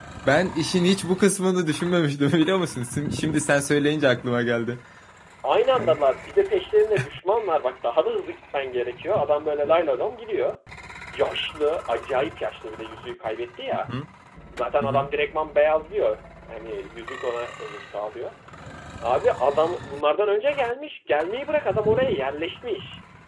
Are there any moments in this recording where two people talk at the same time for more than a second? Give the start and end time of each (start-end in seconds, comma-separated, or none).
none